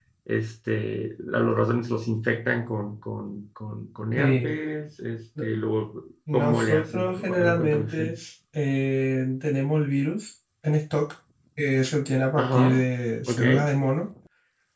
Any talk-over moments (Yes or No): Yes